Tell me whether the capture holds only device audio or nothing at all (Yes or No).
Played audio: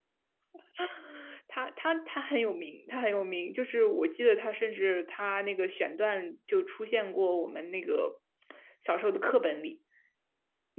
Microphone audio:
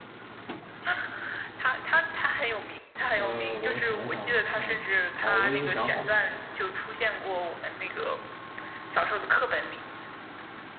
No